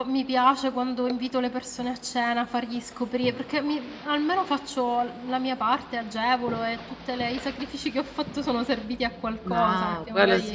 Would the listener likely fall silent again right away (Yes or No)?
No